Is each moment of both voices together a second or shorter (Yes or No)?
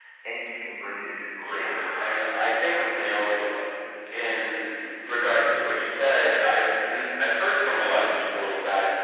No